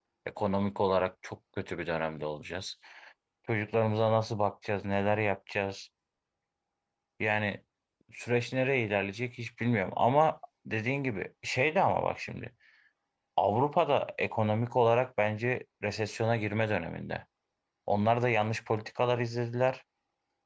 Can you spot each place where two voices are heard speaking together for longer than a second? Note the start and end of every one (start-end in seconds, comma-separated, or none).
none